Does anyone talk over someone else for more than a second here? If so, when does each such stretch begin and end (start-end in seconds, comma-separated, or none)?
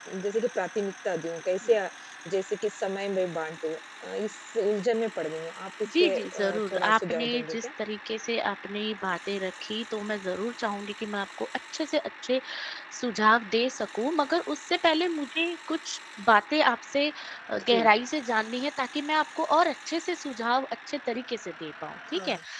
6.0-7.7